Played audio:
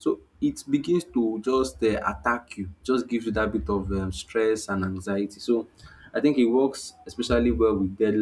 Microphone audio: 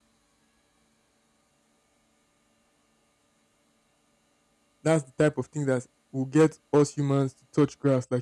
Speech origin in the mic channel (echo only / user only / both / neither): user only